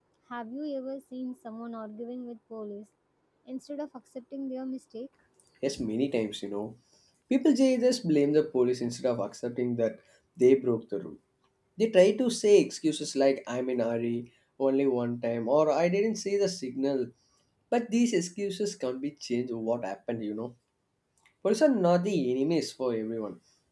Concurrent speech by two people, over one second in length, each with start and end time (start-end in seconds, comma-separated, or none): none